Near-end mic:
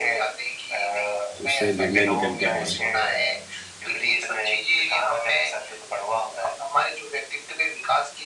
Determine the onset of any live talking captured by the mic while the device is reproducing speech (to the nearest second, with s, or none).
1 s